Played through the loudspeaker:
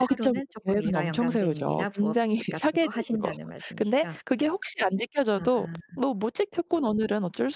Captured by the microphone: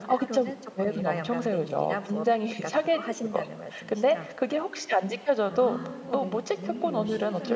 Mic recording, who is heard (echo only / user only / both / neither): both